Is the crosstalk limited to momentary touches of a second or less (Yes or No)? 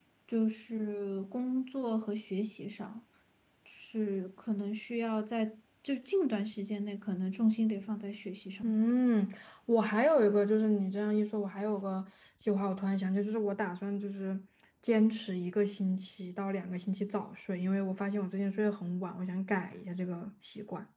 Yes